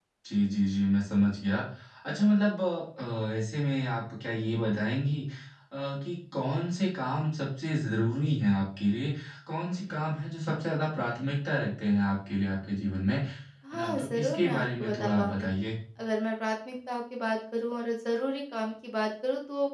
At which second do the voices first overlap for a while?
13.6 s

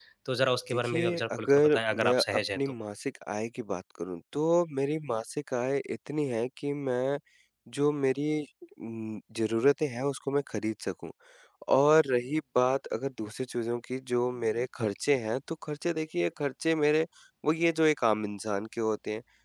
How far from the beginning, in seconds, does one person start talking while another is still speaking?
0.7 s

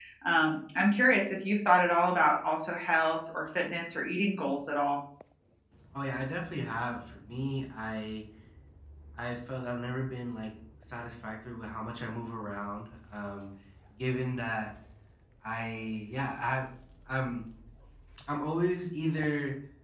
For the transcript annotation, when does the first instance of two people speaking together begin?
none

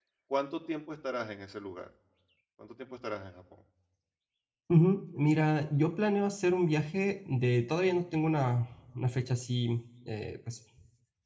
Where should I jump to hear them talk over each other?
none

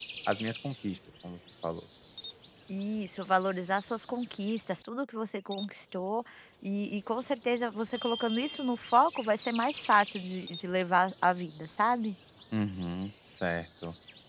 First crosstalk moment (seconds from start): none

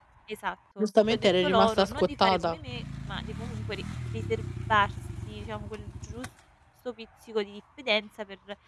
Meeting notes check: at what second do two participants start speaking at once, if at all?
0.8 s

